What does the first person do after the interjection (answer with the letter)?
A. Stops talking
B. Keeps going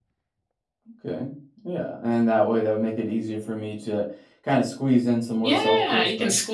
A